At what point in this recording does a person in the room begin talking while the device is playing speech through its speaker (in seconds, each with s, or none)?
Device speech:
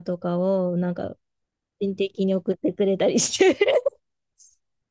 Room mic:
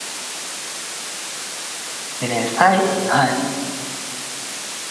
2.2 s